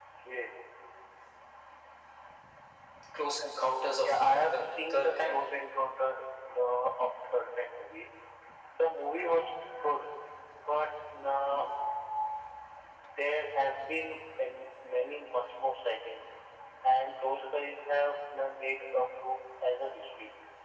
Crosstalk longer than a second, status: present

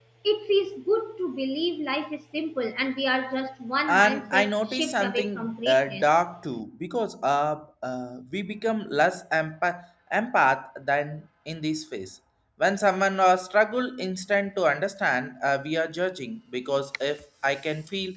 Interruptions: present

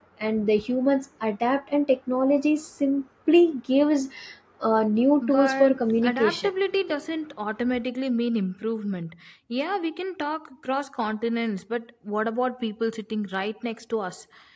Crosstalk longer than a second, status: present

